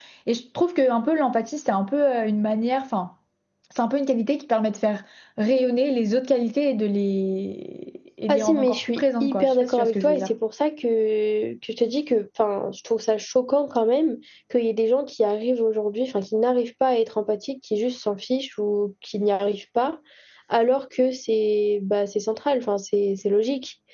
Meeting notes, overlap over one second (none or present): present